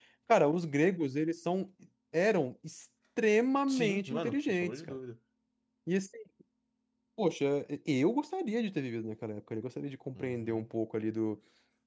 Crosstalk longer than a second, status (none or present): present